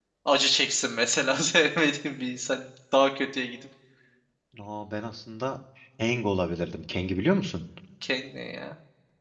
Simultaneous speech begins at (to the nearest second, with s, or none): none